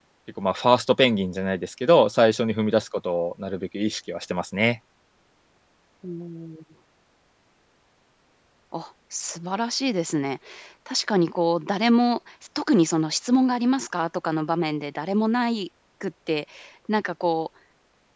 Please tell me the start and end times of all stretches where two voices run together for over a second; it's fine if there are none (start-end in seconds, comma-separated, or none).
none